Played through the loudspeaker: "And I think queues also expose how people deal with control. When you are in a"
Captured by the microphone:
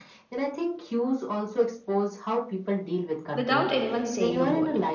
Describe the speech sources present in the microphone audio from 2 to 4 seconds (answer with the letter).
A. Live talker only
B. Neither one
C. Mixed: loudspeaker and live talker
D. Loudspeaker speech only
C